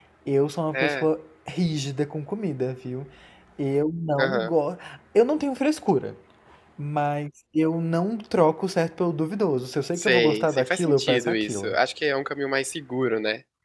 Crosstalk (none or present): present